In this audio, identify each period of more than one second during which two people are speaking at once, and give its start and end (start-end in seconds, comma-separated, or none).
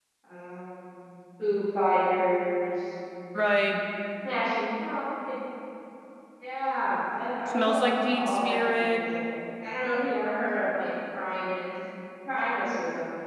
7.5-9.0